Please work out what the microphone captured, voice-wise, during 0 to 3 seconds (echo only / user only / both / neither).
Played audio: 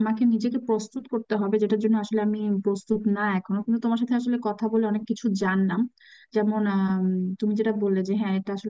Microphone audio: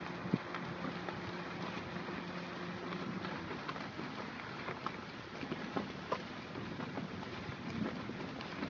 neither